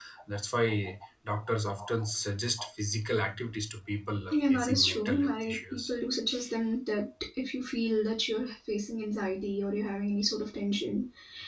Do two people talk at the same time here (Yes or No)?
Yes